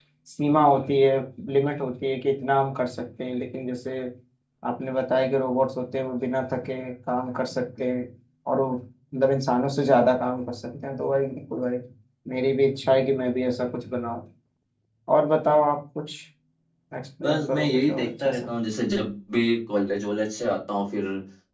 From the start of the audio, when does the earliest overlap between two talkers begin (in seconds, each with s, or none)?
17.2 s